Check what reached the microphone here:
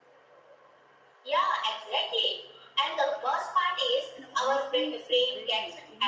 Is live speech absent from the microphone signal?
No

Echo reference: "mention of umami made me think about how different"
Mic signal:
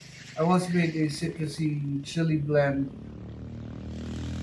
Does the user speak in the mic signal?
Yes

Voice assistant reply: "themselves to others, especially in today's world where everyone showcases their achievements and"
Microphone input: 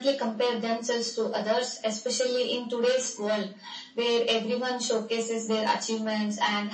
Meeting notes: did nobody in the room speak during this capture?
Yes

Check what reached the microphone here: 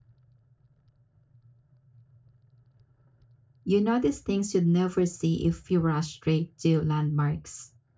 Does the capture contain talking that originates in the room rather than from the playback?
Yes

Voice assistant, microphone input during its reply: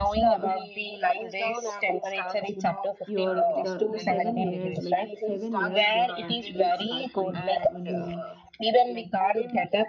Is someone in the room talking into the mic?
Yes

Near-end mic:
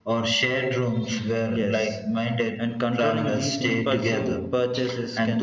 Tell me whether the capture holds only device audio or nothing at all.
No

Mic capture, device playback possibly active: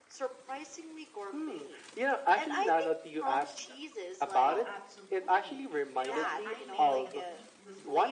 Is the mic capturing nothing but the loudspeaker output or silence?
No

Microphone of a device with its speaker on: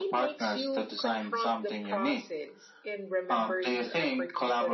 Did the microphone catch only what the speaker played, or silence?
No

